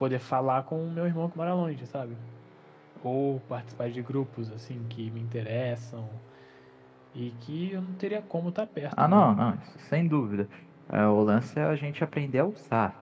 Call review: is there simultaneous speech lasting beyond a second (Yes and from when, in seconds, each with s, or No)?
No